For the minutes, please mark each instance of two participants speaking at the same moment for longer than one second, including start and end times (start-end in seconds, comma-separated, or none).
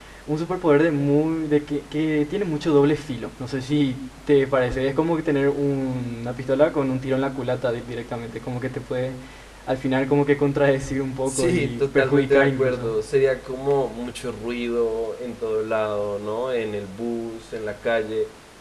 11.2-12.9